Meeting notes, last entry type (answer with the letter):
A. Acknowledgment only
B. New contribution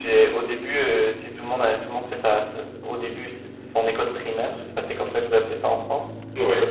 B